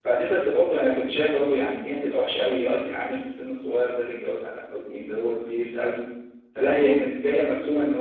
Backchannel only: Yes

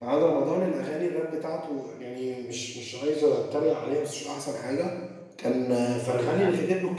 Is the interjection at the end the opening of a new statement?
No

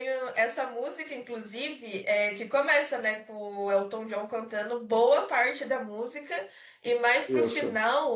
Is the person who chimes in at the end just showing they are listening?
Yes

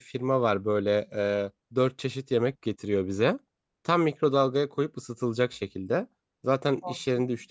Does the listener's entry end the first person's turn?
No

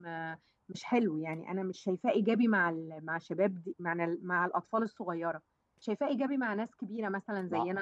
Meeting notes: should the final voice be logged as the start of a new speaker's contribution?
No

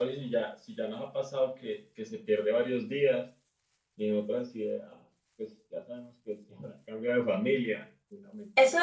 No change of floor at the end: No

